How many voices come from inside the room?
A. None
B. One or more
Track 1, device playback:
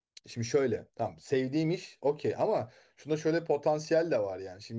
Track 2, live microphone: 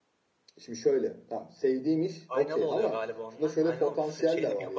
B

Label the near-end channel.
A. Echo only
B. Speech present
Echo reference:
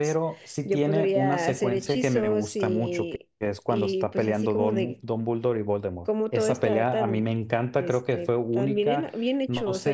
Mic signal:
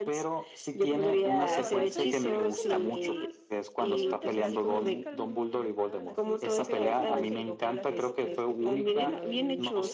B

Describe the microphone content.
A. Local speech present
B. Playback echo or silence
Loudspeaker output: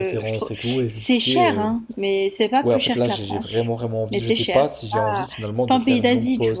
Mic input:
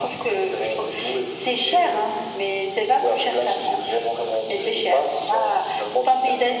B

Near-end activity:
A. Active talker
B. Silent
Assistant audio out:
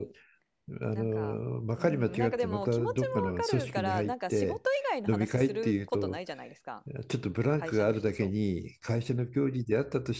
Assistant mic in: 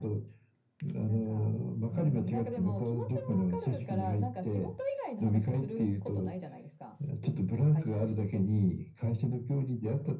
B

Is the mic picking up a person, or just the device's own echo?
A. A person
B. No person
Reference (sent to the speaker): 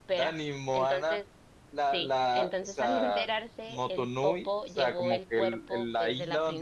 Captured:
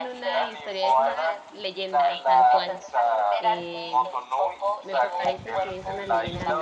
A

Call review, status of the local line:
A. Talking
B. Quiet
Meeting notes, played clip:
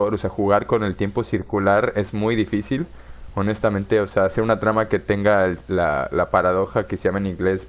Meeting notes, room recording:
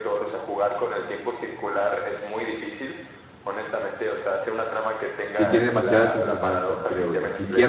A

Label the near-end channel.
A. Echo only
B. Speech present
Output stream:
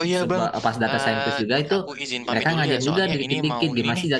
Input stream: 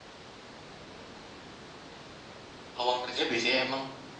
B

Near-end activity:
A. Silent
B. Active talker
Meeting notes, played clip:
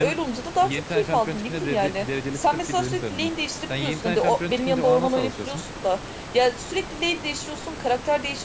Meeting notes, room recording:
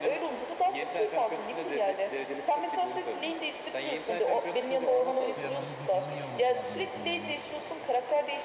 B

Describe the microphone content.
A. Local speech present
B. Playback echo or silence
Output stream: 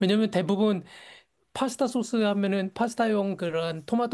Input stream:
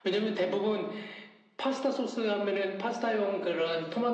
B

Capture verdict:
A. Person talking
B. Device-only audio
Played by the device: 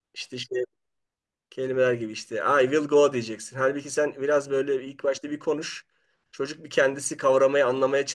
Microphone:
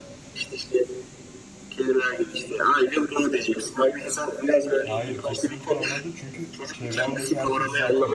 A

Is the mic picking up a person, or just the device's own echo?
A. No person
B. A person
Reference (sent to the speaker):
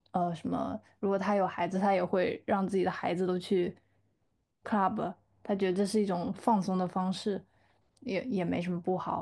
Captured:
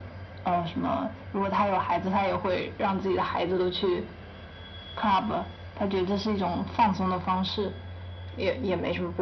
A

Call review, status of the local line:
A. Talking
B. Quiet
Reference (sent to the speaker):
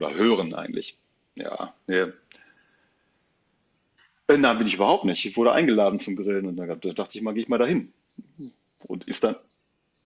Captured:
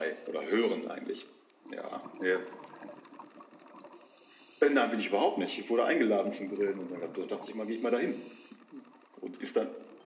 B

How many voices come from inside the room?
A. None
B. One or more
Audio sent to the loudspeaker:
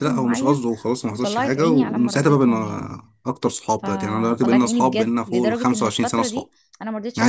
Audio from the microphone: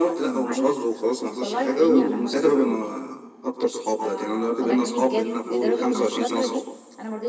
A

